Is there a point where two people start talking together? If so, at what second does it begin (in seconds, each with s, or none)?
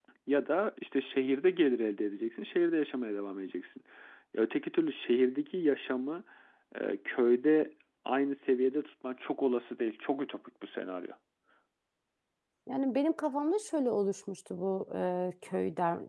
none